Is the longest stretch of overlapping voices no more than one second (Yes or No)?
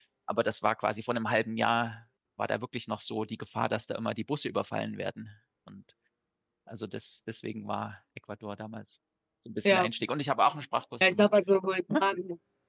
Yes